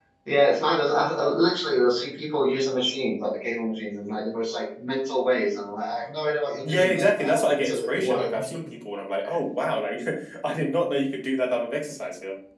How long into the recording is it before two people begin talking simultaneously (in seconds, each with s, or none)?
6.6 s